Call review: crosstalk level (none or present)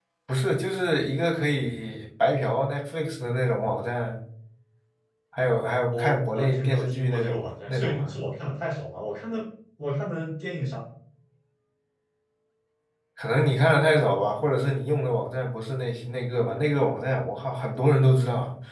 present